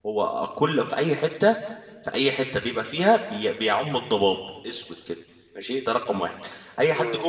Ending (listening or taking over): listening